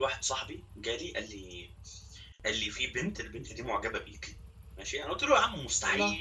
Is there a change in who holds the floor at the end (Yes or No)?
No